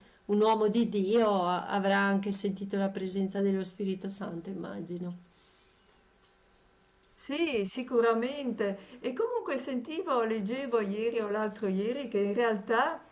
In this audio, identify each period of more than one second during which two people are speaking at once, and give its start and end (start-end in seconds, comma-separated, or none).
none